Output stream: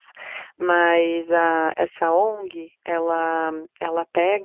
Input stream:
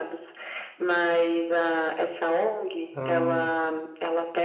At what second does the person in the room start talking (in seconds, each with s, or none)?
2.9 s